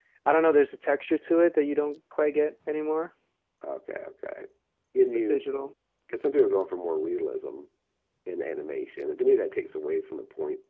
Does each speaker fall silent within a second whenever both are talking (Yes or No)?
Yes